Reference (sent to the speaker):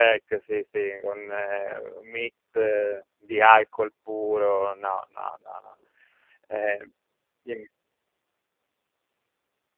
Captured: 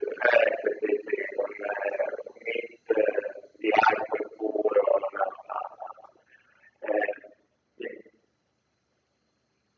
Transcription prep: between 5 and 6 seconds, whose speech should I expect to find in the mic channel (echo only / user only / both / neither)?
echo only